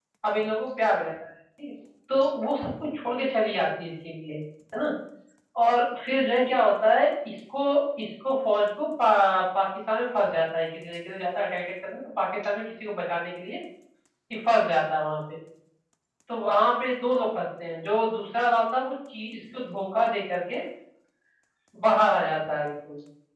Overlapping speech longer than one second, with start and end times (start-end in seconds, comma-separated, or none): none